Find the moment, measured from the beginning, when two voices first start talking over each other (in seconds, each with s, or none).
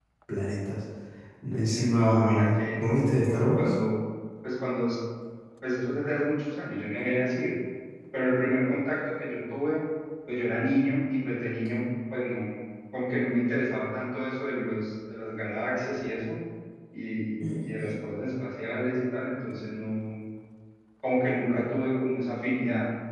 1.6 s